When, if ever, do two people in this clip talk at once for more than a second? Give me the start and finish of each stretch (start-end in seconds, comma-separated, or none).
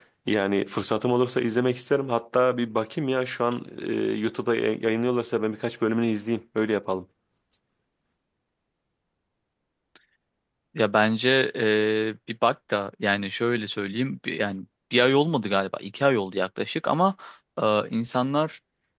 none